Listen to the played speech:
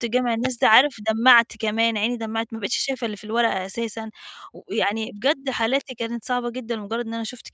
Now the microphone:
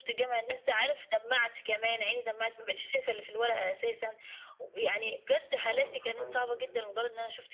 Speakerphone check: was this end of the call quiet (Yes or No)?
No